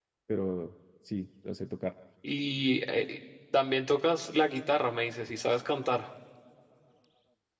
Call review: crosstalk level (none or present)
none